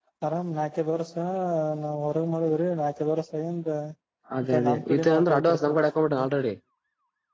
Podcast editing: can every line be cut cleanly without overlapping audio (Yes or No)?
No